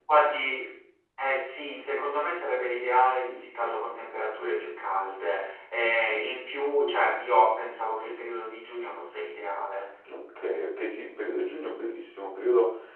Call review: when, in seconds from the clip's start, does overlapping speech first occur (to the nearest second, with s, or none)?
none